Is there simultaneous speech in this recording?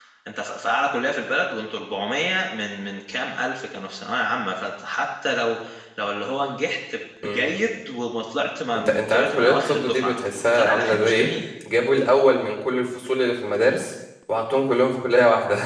Yes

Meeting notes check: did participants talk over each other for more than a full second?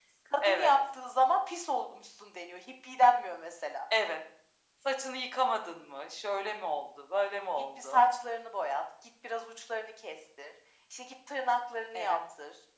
No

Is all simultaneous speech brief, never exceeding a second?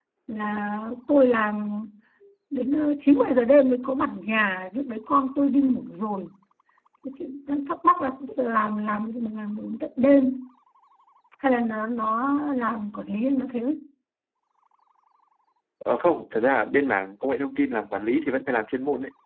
Yes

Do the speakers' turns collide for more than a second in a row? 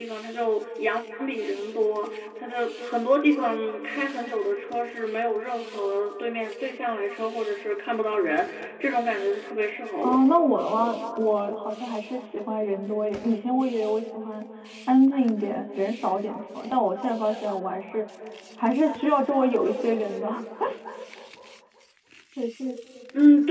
No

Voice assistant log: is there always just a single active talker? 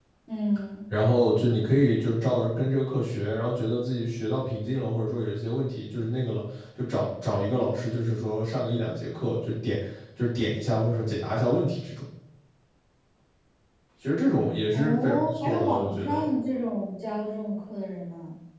No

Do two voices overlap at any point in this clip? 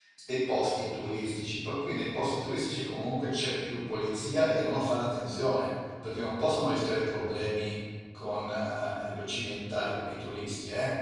No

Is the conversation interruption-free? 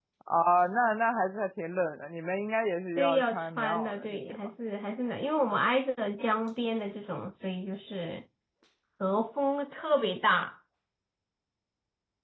No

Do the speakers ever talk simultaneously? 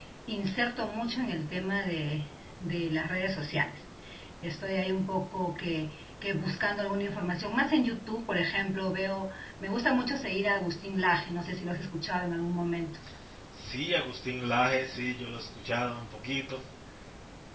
No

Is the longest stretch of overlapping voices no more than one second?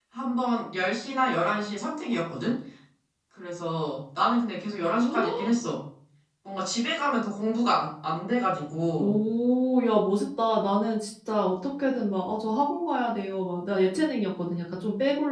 Yes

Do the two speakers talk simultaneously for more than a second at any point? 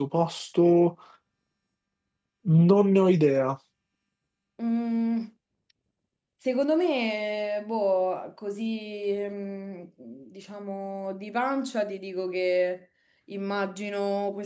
No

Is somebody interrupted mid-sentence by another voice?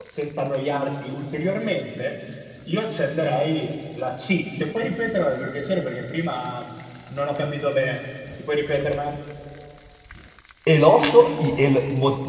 No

